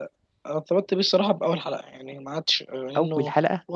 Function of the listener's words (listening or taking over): listening